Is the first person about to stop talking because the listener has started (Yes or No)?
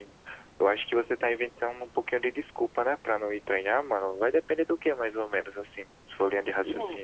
Yes